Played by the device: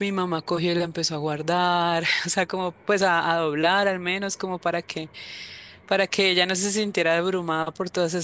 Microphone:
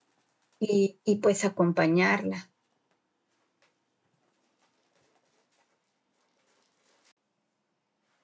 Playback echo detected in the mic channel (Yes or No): No